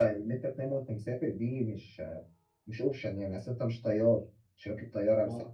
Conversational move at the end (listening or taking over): listening